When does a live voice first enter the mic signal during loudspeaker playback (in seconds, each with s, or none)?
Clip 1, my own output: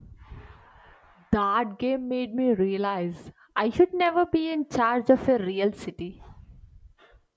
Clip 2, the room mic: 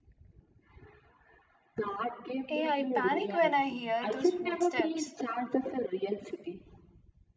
2.5 s